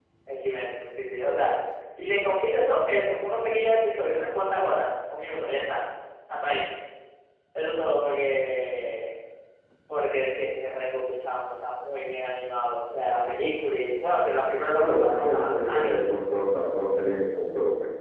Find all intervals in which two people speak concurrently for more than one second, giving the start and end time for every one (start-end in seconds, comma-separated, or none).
14.8-16.0